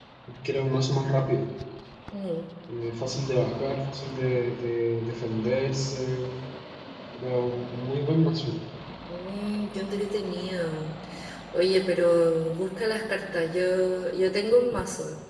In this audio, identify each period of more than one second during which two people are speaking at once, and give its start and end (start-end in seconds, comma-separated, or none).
none